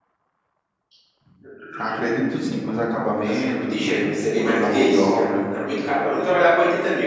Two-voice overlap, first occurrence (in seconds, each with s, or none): 3.2 s